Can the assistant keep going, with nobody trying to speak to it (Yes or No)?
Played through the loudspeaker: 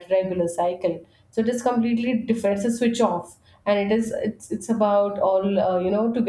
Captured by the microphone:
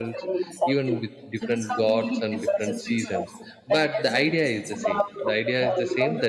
No